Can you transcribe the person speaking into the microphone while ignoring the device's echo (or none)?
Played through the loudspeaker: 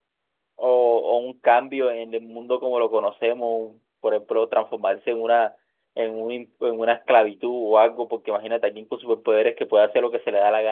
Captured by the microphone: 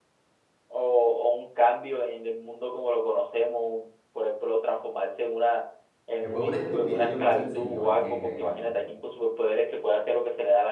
fue una estupidez lo que hizo el señor Ken ahí, la verdad.